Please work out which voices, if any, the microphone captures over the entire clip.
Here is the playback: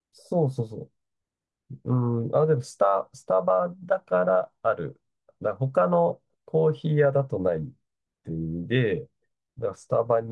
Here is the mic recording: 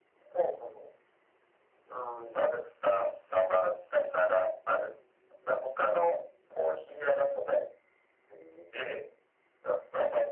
echo only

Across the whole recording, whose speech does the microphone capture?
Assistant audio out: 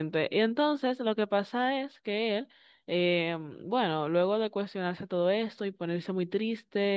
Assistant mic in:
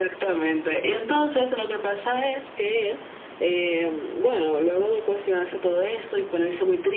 echo only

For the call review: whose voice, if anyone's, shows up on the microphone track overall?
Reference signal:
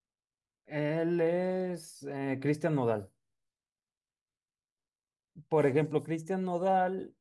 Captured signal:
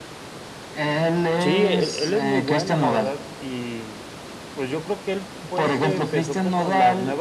both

